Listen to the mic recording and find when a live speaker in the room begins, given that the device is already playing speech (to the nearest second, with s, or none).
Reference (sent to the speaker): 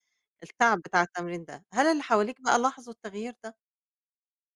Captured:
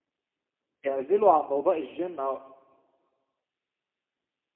1 s